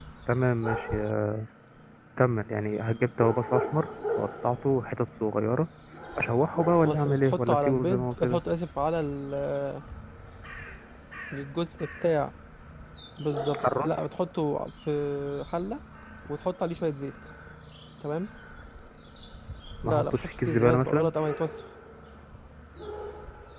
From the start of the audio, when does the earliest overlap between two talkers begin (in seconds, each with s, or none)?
6.8 s